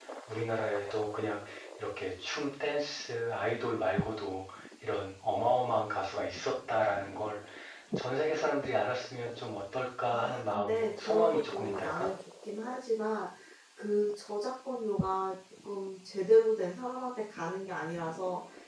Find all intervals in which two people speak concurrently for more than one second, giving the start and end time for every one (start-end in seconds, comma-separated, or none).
10.1-12.1